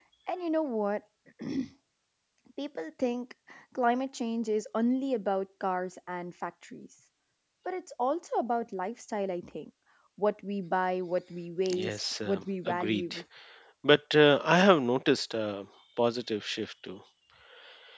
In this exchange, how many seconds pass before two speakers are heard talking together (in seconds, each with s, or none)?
11.7 s